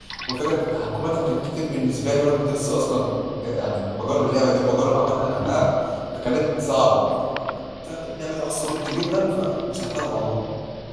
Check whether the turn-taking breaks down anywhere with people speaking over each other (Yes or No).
No